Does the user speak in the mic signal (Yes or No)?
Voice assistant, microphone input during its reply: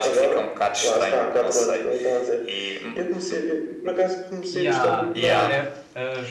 Yes